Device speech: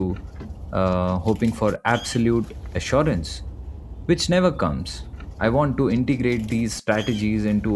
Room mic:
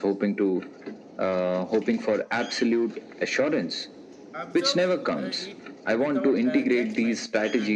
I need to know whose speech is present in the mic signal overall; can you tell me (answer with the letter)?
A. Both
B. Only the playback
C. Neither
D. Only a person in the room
A